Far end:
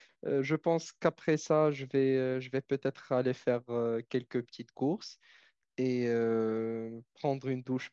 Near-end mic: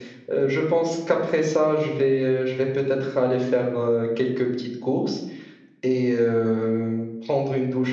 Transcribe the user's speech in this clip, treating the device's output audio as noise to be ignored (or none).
none